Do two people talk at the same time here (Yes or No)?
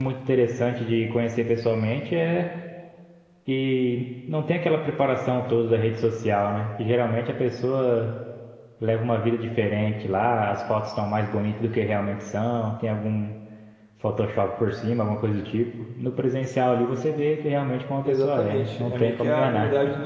Yes